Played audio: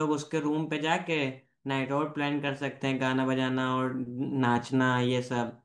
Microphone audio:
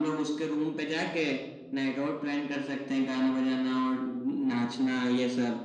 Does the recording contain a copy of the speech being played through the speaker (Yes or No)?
Yes